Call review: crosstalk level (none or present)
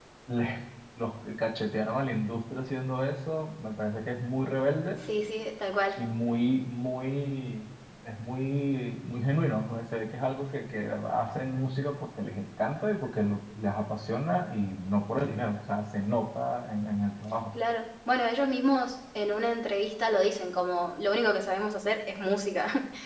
none